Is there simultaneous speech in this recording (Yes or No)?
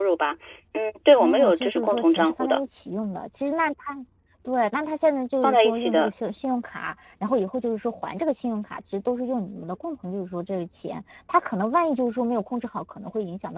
Yes